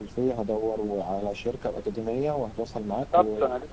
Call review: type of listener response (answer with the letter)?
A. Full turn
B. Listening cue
A